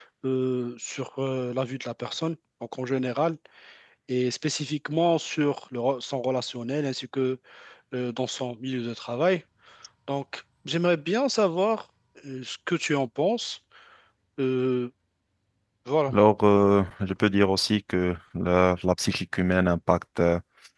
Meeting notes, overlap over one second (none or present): none